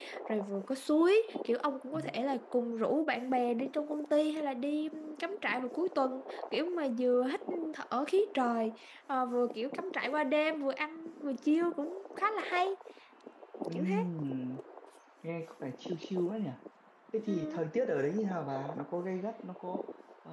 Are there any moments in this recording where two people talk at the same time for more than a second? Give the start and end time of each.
none

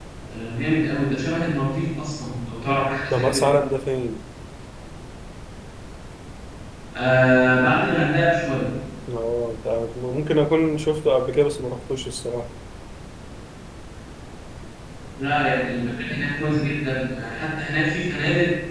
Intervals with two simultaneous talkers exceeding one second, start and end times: none

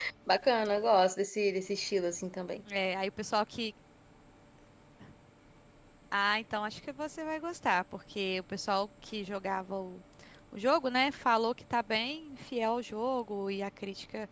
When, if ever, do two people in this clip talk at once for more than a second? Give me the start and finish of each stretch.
none

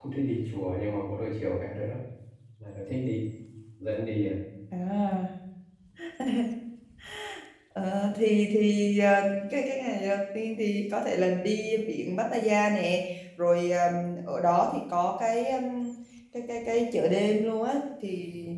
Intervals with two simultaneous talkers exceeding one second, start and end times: none

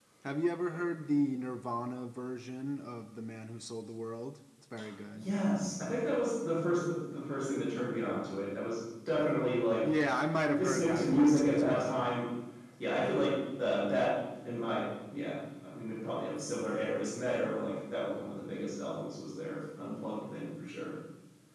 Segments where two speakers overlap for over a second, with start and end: 10.4-12.1

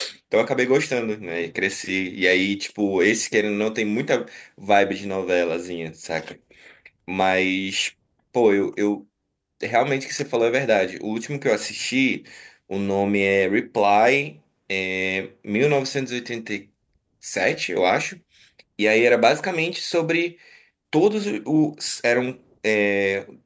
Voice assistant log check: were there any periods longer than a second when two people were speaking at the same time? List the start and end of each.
none

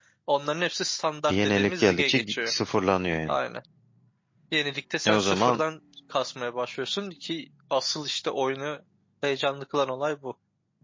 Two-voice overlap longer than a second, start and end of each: 1.3-2.5

